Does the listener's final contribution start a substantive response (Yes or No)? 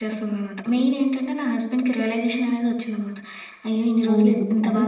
Yes